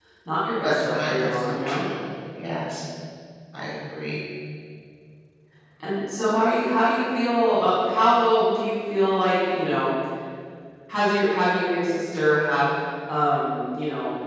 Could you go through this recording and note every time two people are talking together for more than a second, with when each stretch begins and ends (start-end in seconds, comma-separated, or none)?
0.6-1.9